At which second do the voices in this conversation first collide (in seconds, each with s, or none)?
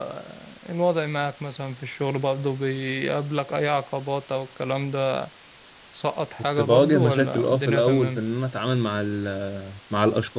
6.6 s